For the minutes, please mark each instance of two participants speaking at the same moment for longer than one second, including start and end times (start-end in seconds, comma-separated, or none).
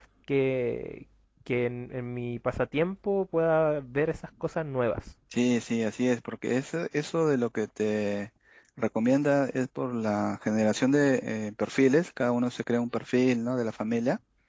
none